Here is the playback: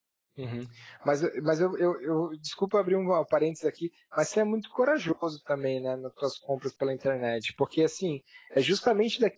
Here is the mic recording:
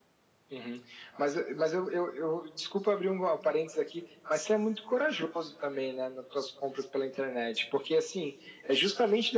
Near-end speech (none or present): none